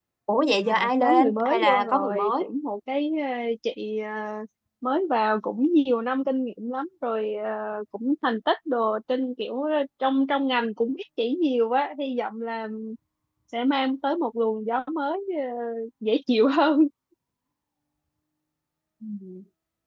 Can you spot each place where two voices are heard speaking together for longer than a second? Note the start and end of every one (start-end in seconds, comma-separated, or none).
0.7-2.5